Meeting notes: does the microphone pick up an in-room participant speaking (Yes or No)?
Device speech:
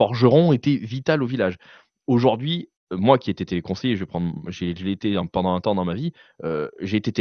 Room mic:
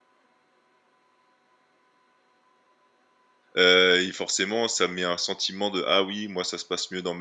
Yes